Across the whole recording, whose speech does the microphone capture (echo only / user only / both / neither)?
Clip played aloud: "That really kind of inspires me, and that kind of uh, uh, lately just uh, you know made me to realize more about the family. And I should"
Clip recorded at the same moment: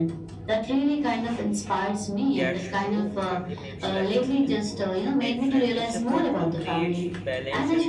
both